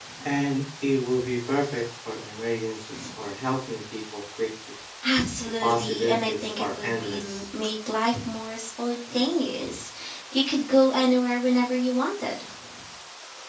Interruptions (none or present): present